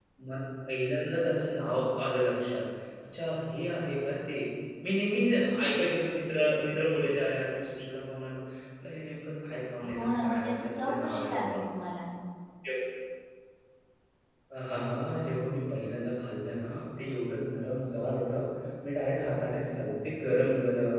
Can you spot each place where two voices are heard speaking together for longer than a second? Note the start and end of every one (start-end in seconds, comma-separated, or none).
9.9-11.6